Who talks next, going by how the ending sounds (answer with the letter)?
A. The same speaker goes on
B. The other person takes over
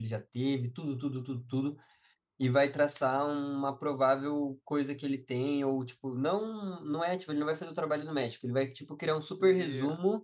A